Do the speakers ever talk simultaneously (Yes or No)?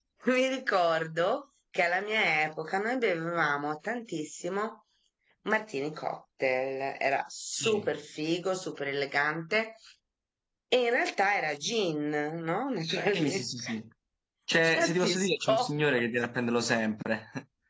Yes